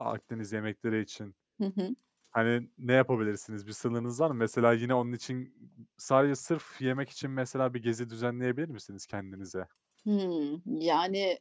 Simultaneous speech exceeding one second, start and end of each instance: none

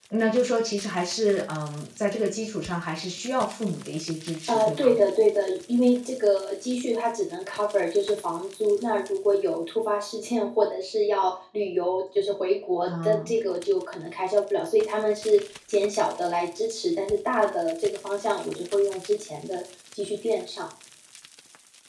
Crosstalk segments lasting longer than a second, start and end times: none

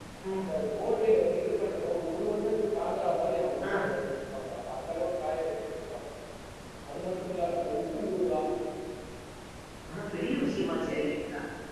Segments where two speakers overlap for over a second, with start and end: none

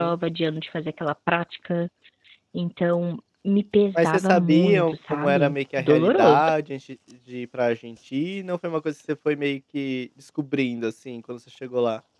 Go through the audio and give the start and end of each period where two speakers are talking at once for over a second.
4.0-6.4

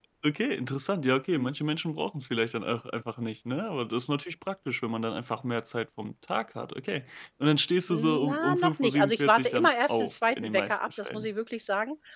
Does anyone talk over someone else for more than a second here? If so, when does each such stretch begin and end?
7.9-11.3

